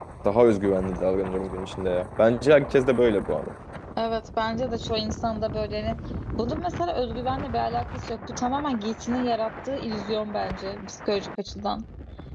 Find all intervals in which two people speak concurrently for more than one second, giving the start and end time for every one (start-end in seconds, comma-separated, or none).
none